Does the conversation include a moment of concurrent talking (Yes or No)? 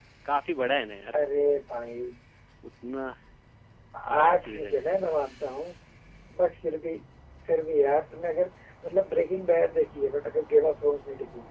Yes